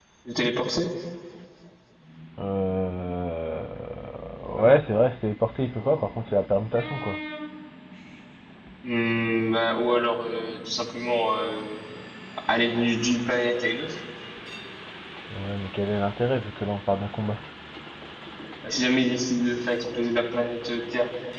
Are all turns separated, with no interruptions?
Yes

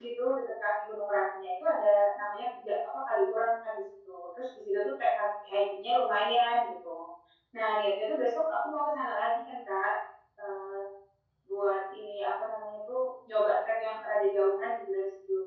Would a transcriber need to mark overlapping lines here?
No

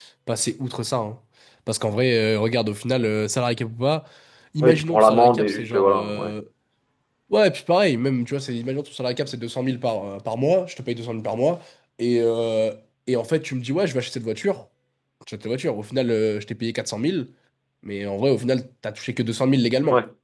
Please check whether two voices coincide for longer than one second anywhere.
Yes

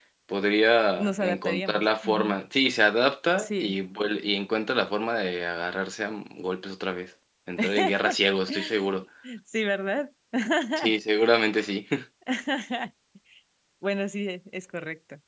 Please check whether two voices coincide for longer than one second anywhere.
Yes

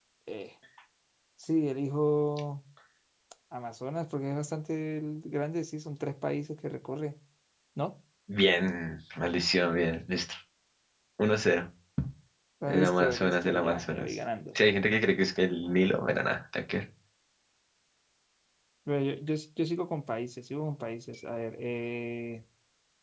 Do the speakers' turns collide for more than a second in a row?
Yes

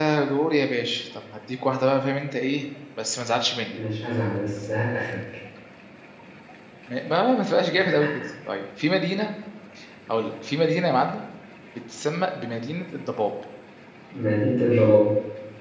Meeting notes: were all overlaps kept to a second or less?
Yes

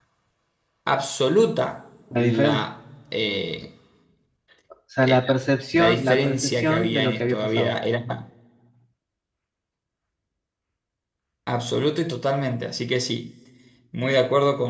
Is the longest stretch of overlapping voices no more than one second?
No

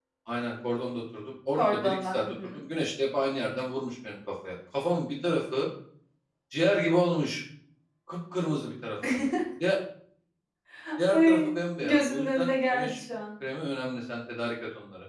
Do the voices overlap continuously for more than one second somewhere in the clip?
Yes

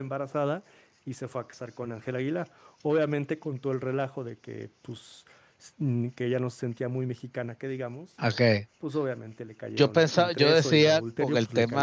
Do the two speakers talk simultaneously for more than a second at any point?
Yes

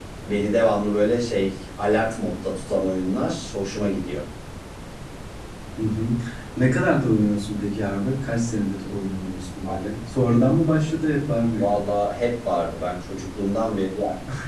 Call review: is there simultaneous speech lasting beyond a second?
No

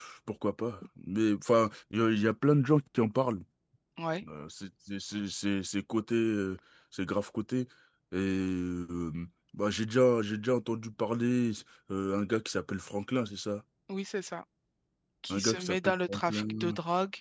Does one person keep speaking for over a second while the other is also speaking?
Yes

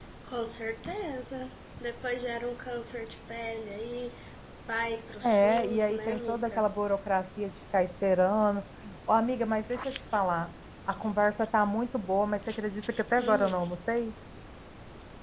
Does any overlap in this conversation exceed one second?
Yes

